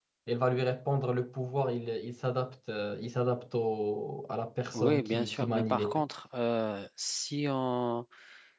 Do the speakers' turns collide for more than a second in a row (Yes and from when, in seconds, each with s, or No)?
Yes, from 4.7 s